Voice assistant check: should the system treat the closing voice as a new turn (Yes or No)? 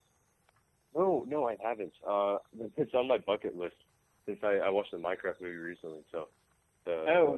Yes